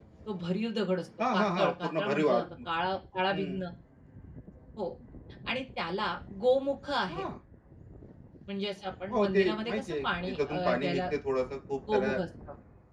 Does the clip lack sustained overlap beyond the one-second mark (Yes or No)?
No